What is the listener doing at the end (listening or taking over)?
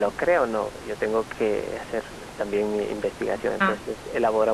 listening